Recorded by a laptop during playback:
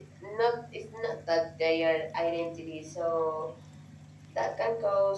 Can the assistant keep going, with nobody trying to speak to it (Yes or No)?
Yes